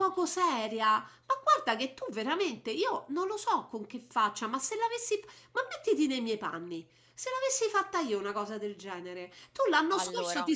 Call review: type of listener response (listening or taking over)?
listening